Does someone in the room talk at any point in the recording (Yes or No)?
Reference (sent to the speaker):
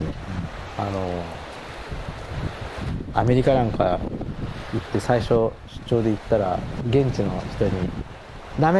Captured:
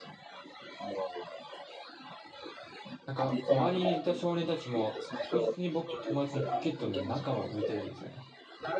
Yes